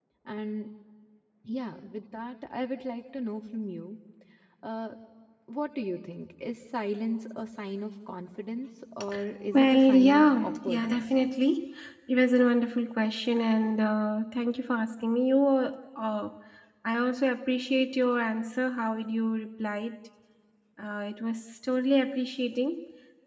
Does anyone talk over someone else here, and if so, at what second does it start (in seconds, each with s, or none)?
9.5 s